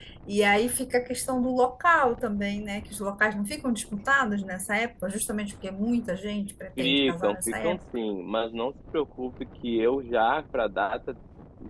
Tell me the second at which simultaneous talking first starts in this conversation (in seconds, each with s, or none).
6.8 s